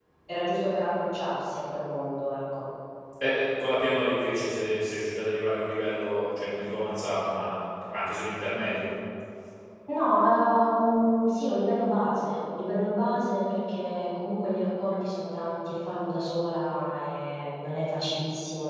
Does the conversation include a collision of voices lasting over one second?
No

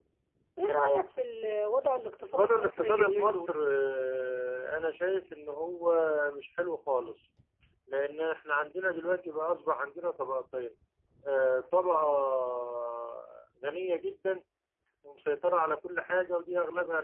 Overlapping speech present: Yes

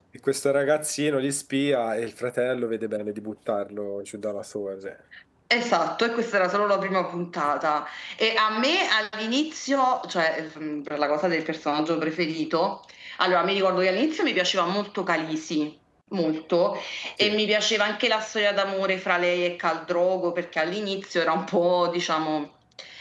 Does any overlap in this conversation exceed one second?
No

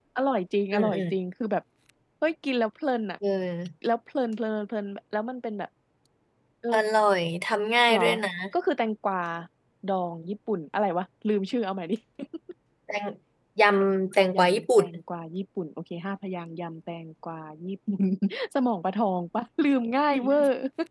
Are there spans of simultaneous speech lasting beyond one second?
No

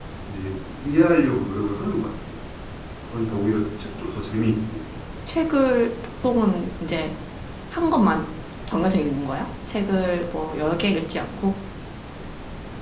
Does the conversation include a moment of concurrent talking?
No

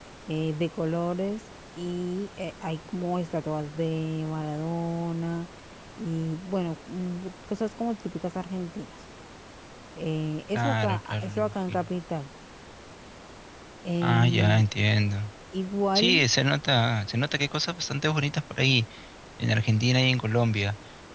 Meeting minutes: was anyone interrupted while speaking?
Yes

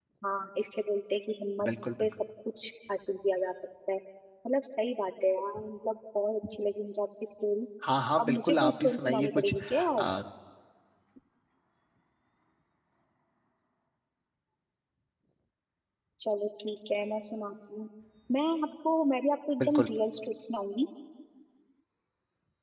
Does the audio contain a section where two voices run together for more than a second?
Yes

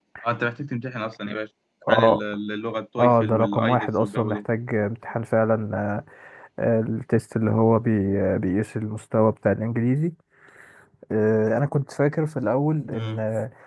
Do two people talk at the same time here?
Yes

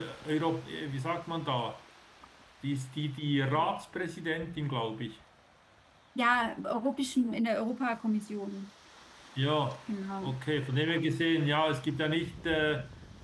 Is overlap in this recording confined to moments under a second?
Yes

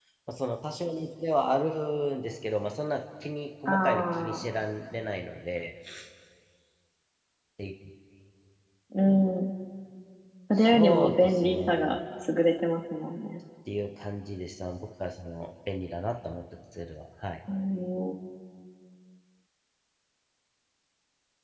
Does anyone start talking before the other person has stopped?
Yes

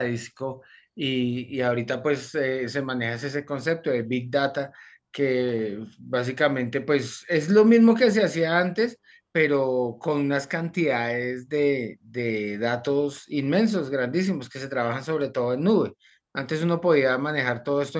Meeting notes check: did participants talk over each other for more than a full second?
No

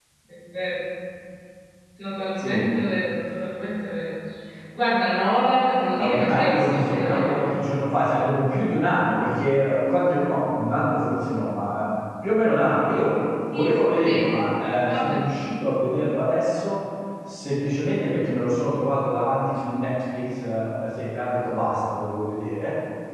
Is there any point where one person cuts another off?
Yes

